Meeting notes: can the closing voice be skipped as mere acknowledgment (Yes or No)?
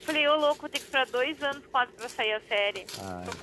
No